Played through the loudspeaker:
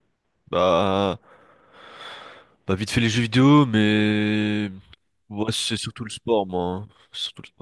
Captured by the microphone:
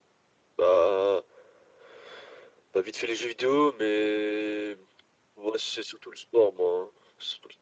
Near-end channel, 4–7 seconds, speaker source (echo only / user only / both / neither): echo only